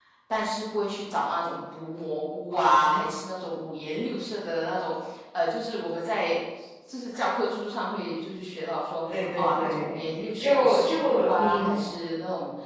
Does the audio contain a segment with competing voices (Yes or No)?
Yes